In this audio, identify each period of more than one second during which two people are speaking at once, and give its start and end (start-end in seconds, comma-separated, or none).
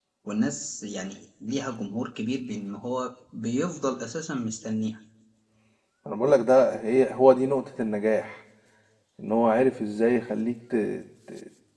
none